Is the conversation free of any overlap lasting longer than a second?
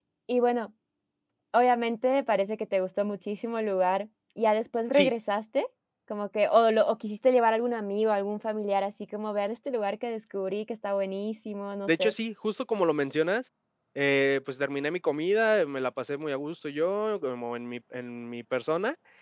Yes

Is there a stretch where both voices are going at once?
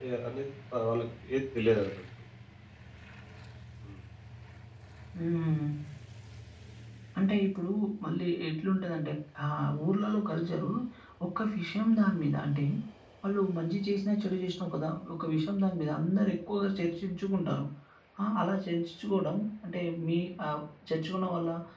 No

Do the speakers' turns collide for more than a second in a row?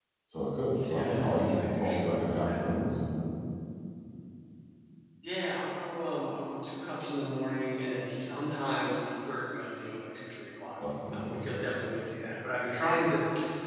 Yes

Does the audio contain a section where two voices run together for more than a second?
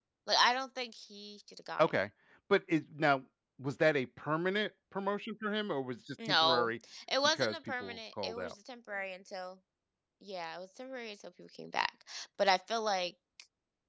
Yes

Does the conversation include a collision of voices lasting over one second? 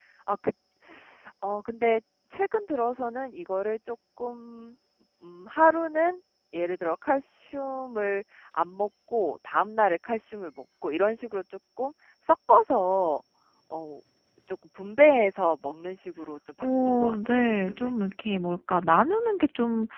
Yes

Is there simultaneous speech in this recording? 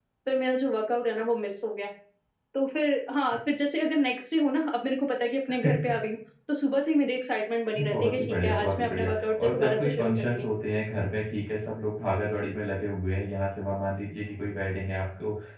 Yes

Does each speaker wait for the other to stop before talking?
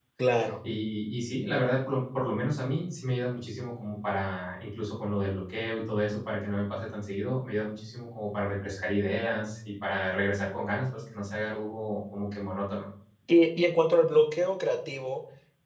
Yes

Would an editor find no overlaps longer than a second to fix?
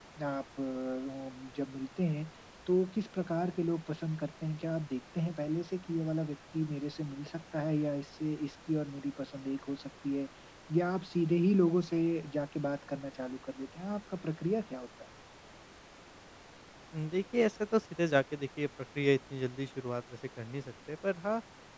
Yes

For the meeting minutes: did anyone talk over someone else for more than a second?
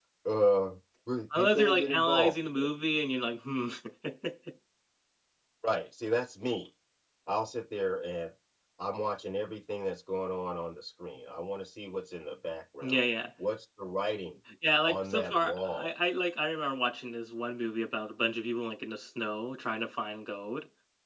Yes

